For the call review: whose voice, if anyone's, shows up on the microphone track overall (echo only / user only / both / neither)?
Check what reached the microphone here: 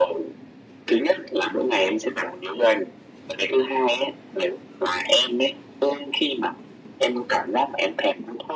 echo only